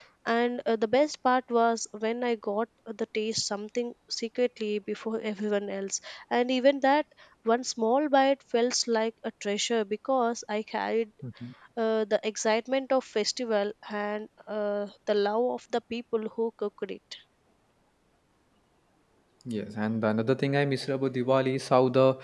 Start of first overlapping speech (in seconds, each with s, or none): none